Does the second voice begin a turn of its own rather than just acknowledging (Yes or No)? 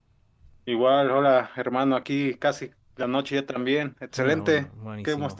Yes